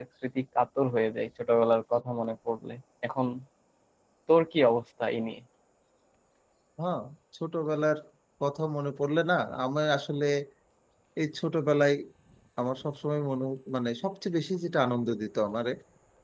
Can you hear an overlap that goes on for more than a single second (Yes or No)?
No